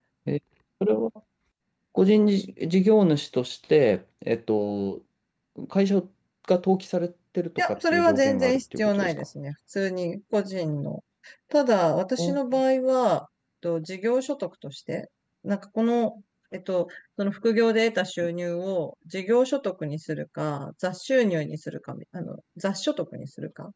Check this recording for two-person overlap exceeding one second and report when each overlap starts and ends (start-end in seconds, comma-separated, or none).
7.7-9.1